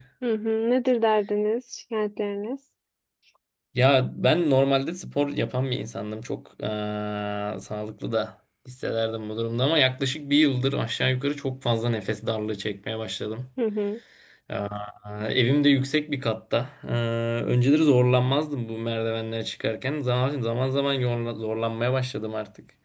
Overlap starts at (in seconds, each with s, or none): none